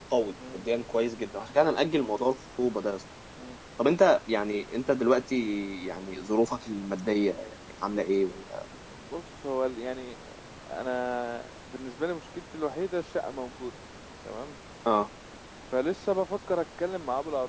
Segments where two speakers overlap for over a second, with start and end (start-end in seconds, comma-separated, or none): none